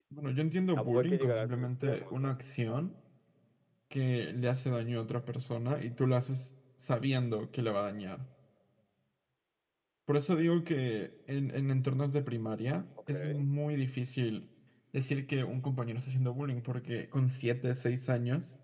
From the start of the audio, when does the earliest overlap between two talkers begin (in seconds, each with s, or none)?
0.8 s